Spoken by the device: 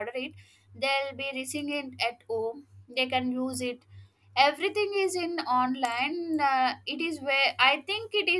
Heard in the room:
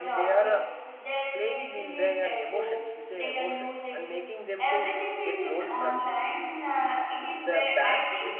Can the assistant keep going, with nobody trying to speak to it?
No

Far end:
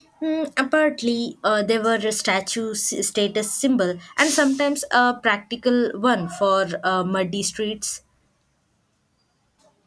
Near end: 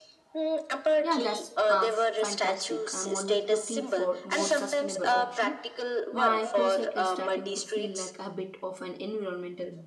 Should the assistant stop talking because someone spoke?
Yes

